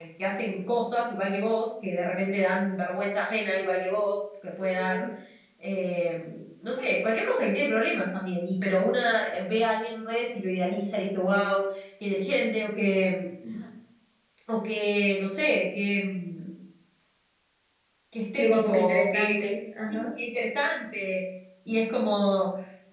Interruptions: present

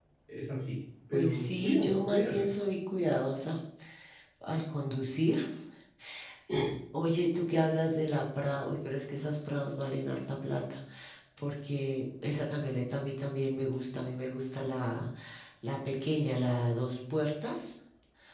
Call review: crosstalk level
present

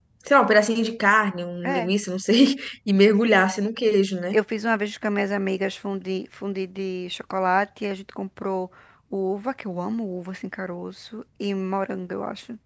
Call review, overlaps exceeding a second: none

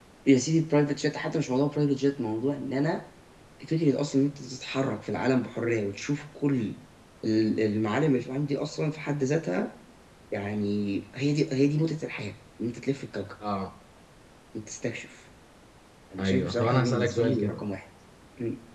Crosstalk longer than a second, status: present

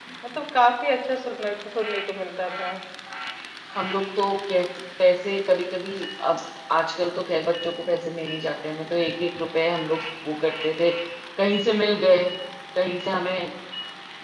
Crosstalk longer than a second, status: none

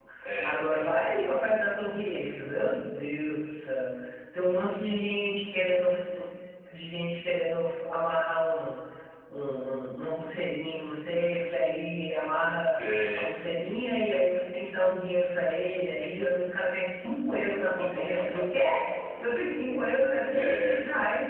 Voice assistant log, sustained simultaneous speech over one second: none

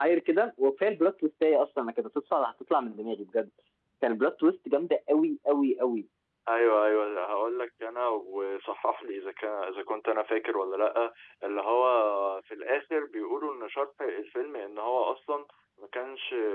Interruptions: none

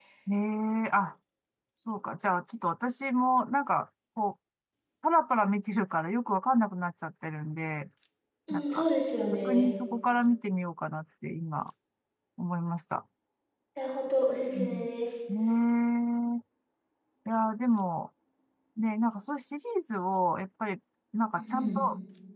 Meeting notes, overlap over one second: none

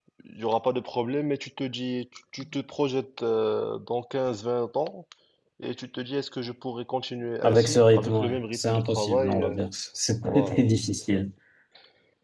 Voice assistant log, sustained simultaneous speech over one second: present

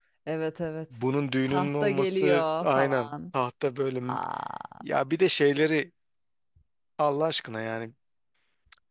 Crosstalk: present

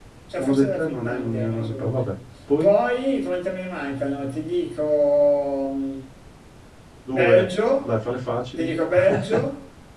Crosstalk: present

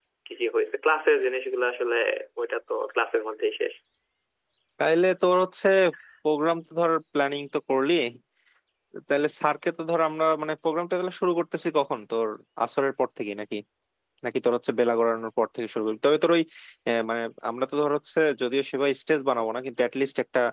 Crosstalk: none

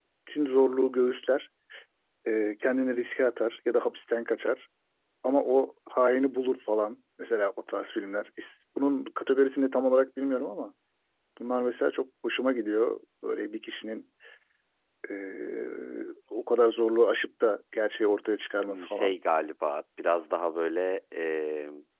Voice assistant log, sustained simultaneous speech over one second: none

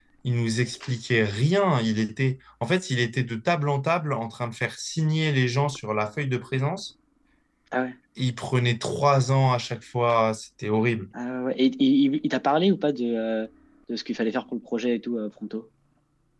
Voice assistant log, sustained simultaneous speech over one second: none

